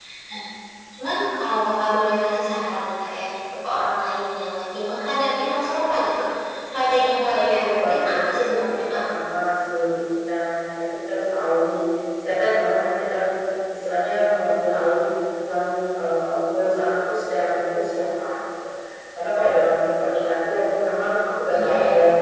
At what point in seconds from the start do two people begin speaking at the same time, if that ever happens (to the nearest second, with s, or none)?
7 s